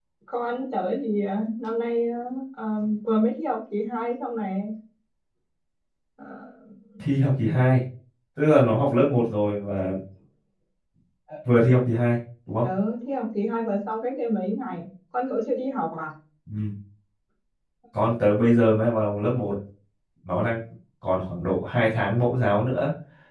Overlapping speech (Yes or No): No